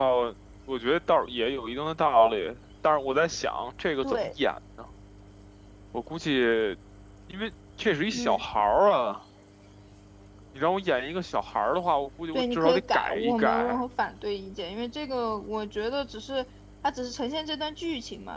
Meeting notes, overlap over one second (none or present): present